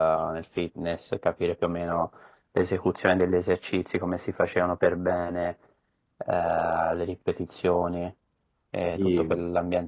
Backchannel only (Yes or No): Yes